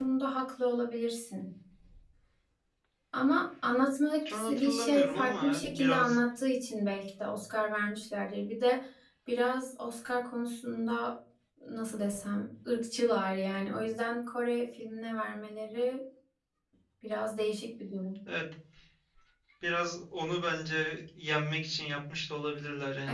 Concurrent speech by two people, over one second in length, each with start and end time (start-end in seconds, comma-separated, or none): 4.2-6.2